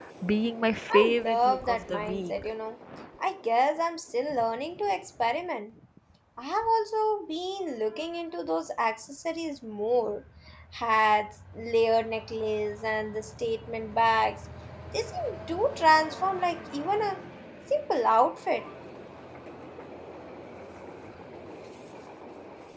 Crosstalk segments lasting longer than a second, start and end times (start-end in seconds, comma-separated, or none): 0.9-2.4